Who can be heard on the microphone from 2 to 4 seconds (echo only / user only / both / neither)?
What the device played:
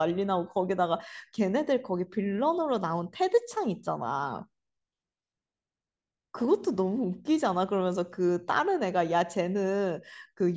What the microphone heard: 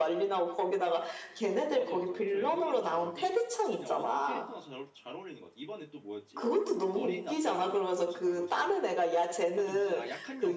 both